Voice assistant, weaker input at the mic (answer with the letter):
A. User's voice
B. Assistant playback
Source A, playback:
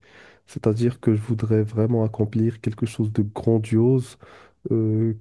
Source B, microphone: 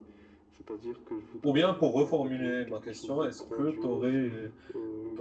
B